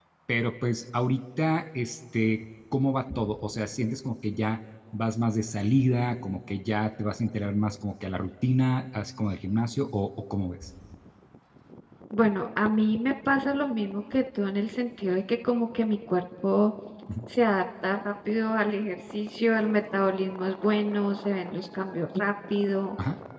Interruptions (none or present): none